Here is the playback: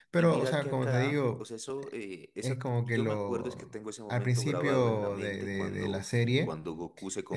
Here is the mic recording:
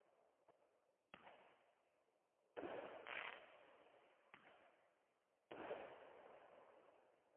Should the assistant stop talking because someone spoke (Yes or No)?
No